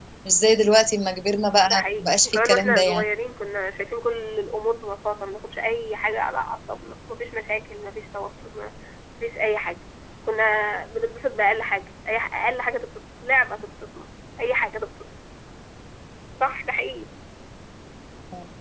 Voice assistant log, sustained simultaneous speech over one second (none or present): present